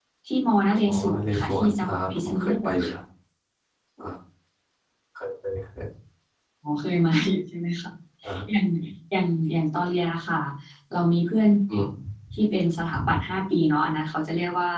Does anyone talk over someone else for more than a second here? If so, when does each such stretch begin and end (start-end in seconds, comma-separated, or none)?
0.9-2.9